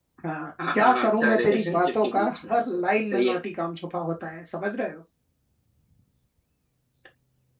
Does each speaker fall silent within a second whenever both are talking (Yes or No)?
No